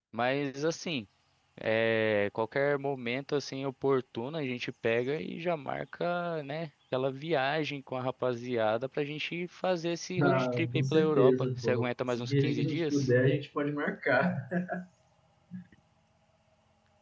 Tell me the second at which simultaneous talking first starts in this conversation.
10.2 s

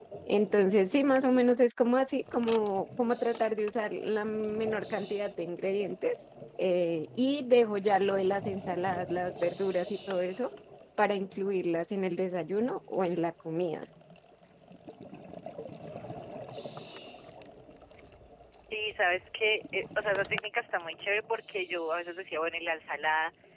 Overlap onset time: none

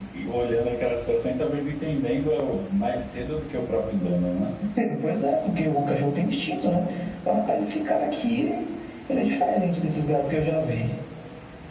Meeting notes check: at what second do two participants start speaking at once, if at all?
none

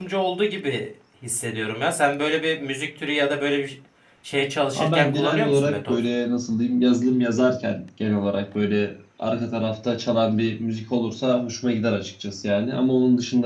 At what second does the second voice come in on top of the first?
4.8 s

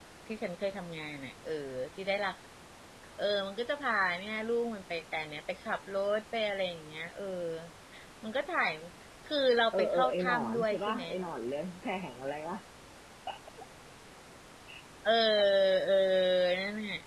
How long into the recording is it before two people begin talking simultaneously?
9.7 s

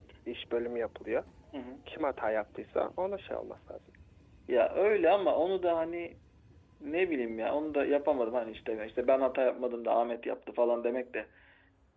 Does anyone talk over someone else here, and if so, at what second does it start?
none

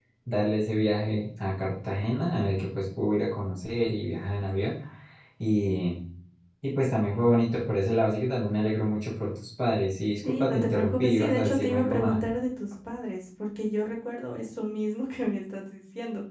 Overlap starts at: 10.2 s

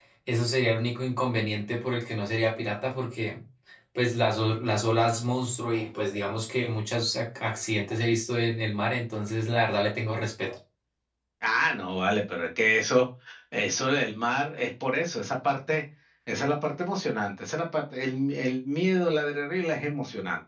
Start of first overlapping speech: none

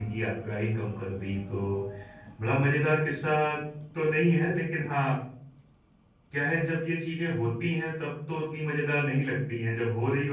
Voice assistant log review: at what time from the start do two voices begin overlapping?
none

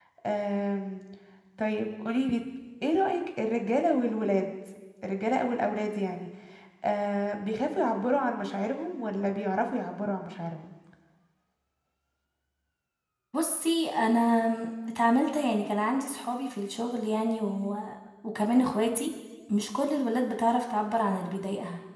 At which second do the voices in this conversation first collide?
none

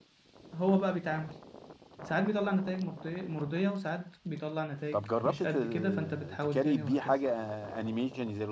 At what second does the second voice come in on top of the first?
4.9 s

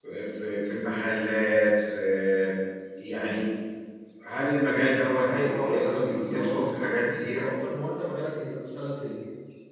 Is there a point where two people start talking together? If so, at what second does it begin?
5.3 s

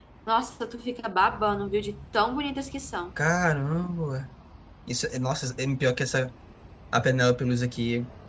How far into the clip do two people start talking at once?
none

